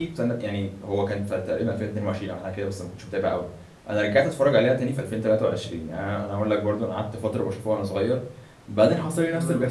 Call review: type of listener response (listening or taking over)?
listening